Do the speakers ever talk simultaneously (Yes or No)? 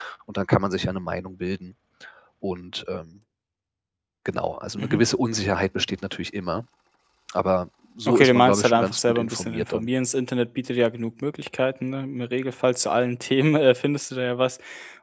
Yes